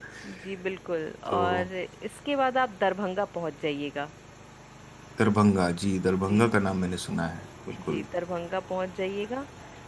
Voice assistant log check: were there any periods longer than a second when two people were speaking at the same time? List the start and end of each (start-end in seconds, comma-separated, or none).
none